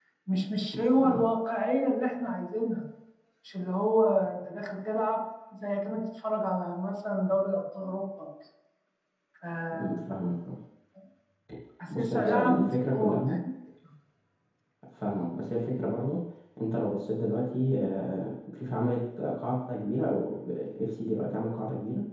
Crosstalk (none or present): present